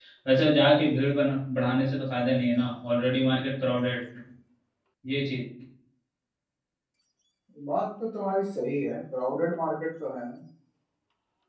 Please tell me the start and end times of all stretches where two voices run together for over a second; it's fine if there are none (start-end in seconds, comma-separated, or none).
none